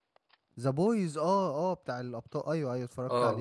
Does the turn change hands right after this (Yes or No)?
Yes